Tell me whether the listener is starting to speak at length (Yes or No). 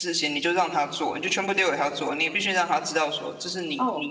No